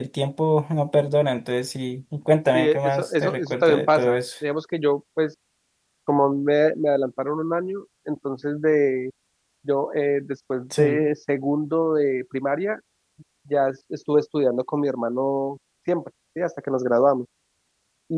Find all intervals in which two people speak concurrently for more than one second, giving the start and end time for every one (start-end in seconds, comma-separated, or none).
2.5-4.2